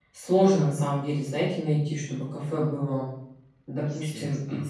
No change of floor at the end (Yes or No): Yes